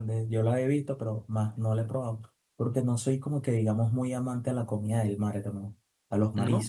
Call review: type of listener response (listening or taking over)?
listening